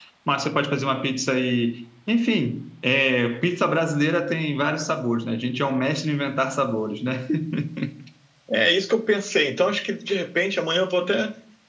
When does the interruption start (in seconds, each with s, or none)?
none